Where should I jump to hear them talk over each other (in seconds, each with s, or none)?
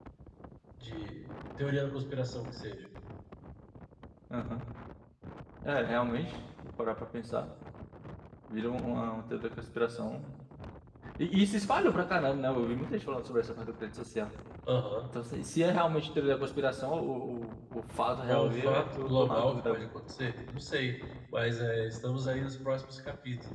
18.3 s